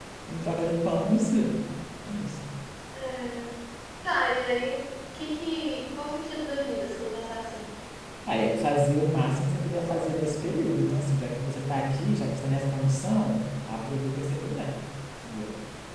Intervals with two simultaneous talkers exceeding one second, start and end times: none

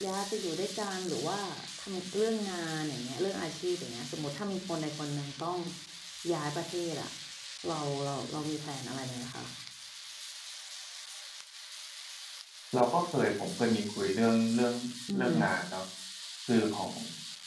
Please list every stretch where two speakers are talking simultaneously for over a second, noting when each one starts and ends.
none

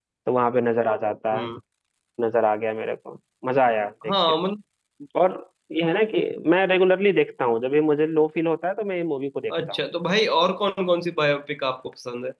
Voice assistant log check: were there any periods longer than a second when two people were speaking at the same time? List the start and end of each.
none

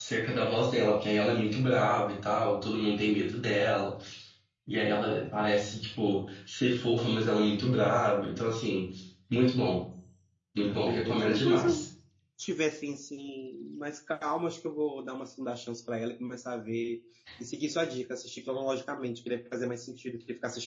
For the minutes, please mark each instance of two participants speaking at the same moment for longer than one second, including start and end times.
10.6-11.8

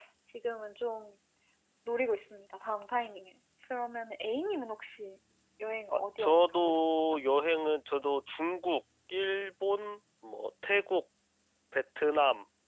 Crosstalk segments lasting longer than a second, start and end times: 5.9-7.2

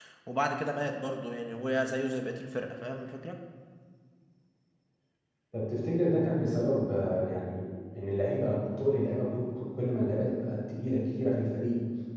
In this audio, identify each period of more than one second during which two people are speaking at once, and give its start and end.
none

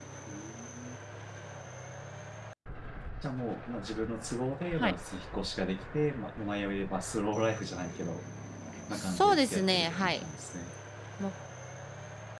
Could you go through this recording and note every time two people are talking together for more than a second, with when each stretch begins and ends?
8.9-10.2

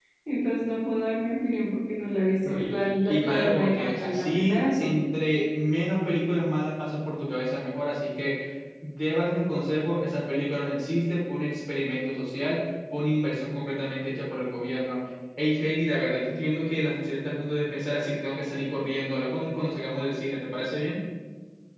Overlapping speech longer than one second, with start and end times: 3.1-4.9

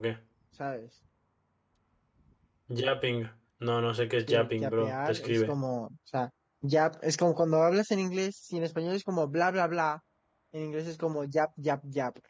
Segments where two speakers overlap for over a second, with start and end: 4.3-5.5

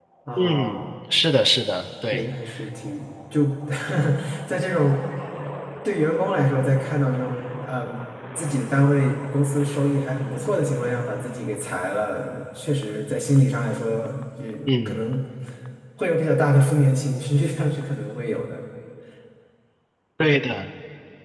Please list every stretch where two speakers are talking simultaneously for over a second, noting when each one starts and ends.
none

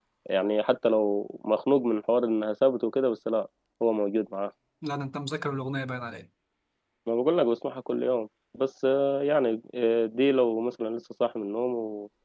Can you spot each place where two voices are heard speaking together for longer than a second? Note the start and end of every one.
none

